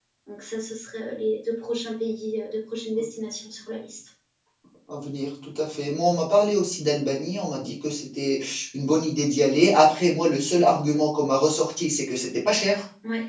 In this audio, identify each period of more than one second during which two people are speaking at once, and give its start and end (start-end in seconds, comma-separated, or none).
none